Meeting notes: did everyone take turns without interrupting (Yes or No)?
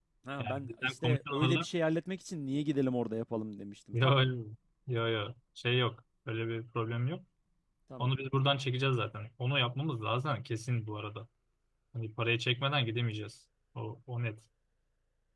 No